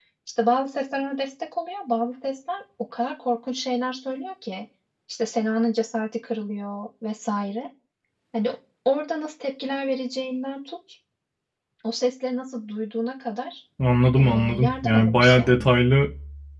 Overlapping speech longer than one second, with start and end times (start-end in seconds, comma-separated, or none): 14.2-15.6